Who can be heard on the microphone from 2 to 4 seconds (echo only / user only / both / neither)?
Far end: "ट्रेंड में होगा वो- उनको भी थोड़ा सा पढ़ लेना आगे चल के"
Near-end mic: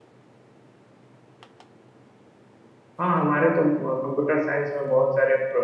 user only